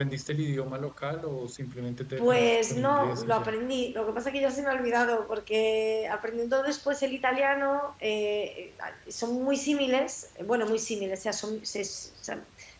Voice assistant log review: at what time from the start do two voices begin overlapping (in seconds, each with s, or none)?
2.2 s